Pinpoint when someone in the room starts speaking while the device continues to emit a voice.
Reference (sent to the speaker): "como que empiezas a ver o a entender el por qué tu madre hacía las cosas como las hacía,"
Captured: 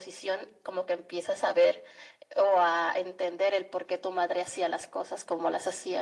none

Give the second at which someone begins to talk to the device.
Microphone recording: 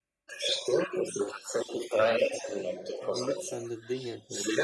3.0 s

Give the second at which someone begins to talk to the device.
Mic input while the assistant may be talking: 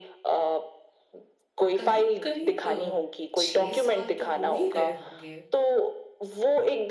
1.8 s

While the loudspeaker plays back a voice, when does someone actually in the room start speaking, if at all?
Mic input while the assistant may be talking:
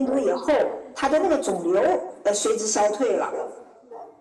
none

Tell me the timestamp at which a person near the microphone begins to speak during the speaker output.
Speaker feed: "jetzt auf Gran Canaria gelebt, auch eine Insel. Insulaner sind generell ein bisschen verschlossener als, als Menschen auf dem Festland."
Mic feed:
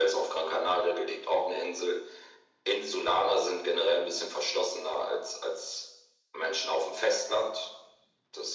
none

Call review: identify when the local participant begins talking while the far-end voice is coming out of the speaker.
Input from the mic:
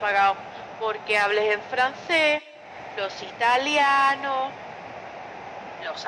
none

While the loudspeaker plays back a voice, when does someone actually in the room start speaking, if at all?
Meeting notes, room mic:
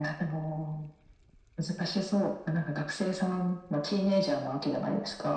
none

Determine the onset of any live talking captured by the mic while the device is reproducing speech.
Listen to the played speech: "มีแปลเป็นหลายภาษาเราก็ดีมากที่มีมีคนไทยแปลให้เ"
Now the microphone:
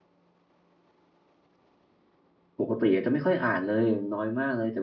2.6 s

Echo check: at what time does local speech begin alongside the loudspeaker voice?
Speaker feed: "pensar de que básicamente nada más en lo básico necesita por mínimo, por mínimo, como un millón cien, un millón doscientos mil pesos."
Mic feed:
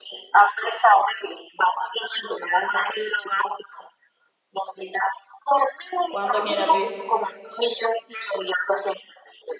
6.1 s

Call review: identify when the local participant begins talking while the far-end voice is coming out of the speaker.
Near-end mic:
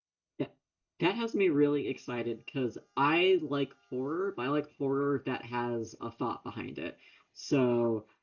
0.4 s

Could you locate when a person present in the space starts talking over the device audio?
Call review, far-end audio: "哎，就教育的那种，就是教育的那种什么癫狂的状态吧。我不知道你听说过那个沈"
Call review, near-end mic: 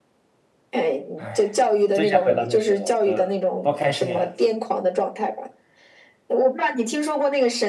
1.2 s

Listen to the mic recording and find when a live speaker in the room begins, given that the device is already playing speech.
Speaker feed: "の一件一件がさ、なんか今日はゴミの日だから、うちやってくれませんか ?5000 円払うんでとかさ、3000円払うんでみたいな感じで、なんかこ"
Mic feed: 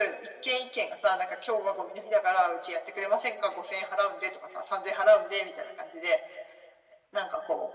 none

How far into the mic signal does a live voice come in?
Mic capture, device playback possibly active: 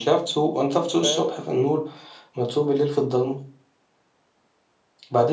0.9 s

